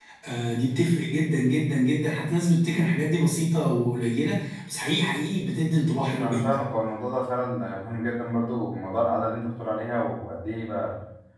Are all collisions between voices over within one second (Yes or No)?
Yes